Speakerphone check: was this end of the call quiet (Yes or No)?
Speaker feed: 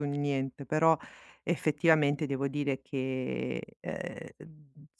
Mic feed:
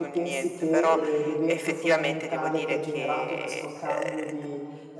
No